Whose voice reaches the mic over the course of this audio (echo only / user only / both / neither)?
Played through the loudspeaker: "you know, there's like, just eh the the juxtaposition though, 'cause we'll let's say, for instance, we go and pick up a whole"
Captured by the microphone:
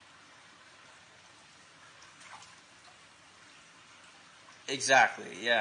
user only